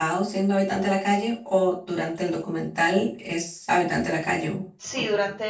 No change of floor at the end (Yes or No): No